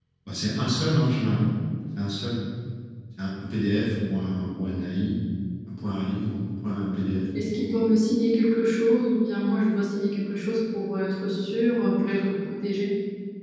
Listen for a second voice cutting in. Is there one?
No

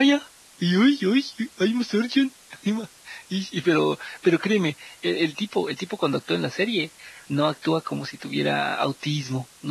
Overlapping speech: No

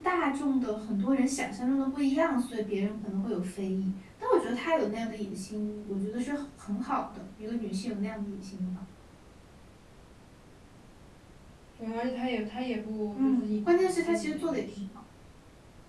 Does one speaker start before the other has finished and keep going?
Yes, from 13.1 s

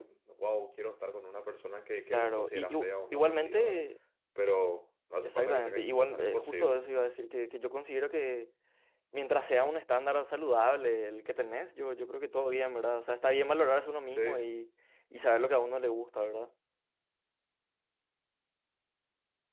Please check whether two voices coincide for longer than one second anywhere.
Yes, from 2.1 s

